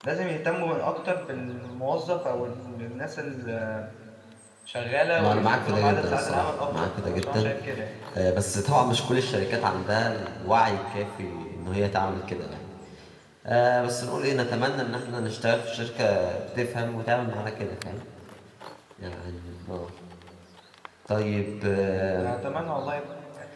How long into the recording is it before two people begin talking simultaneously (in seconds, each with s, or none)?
5.2 s